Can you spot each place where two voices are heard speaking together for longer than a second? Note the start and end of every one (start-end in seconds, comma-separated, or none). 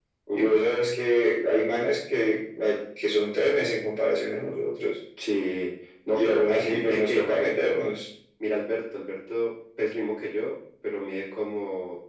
6.1-7.9